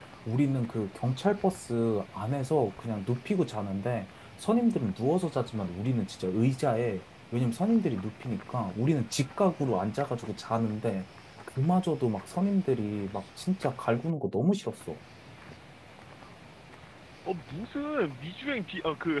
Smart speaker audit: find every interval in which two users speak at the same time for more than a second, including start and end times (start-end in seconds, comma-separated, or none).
none